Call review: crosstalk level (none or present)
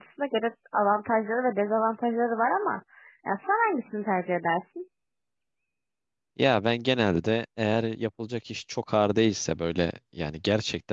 none